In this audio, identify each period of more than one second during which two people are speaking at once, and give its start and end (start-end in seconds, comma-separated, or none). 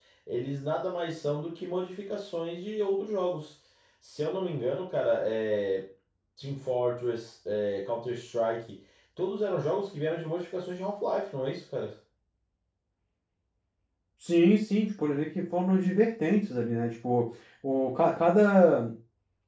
none